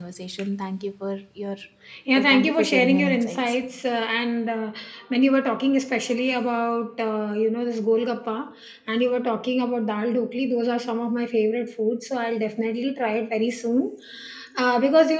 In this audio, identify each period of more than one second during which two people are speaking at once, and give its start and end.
2.2-3.4

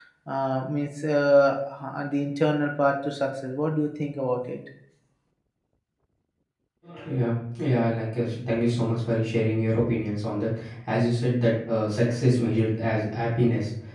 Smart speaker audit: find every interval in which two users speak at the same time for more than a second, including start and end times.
none

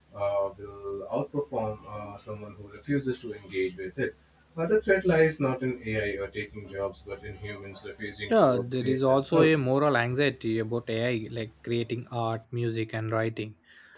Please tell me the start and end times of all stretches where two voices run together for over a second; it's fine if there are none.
8.3-9.6

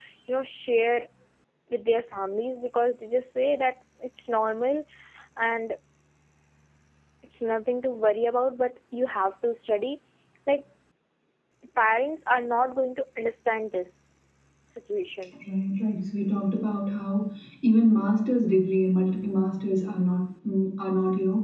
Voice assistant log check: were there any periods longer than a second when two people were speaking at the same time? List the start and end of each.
none

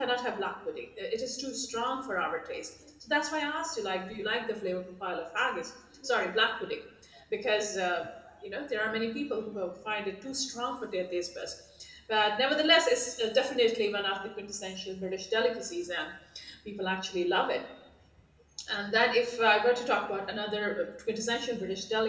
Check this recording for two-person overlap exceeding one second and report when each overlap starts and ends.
none

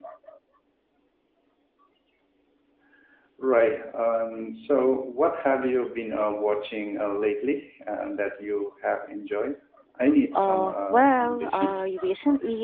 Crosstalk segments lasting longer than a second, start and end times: 10.3-11.9

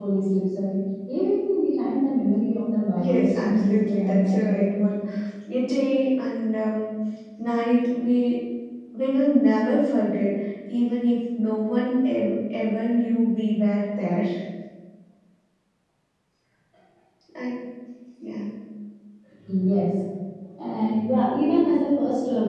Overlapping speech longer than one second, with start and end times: 3.0-4.8

